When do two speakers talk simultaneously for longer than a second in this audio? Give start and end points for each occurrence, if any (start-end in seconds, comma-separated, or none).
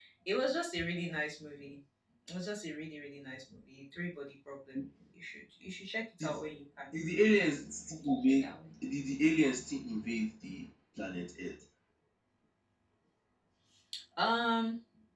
none